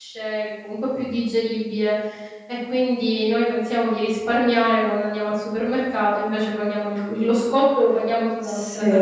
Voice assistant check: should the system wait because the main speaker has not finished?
No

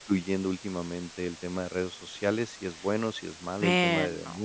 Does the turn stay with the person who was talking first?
Yes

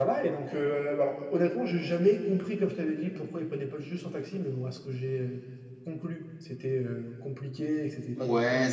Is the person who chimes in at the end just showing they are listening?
No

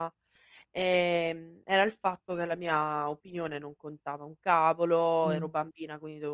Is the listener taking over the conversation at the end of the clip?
No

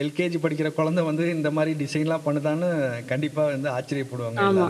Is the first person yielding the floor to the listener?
Yes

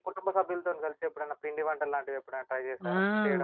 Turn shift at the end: Yes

